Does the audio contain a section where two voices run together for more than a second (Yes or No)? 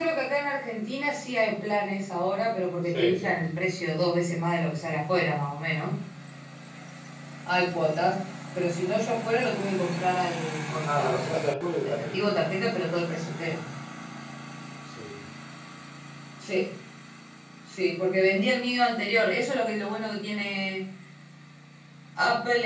No